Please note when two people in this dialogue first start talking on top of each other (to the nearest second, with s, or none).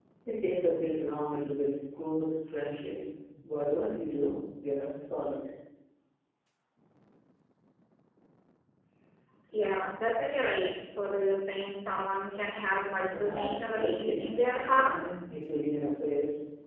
13 s